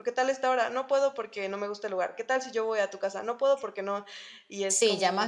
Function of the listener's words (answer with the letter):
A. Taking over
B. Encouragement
A